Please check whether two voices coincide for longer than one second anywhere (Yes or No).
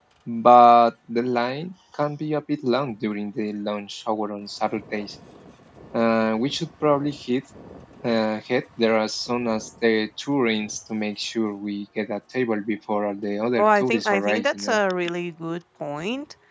Yes